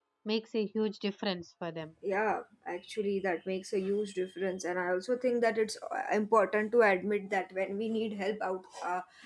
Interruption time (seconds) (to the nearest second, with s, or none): none